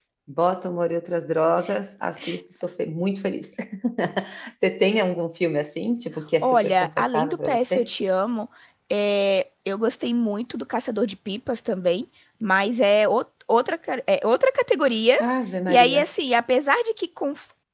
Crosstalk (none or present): present